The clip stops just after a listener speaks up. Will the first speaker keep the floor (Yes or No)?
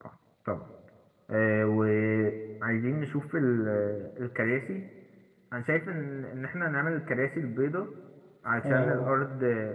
Yes